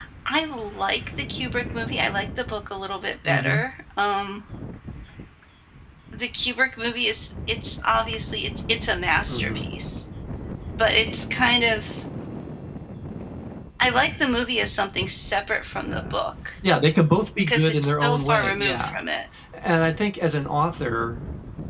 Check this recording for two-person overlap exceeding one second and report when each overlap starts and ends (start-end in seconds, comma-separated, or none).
17.5-19.0